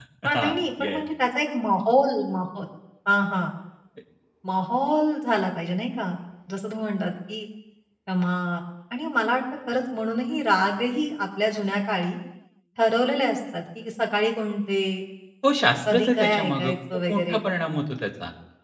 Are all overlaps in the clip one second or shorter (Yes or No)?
No